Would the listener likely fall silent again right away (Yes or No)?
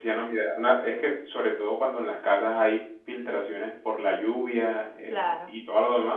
Yes